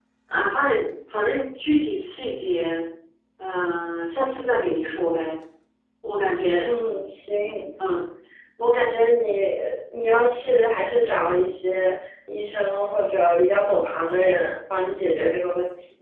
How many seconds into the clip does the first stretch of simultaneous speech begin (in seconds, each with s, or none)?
none